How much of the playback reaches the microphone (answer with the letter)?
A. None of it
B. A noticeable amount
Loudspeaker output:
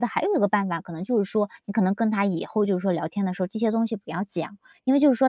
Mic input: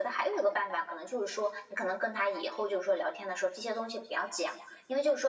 B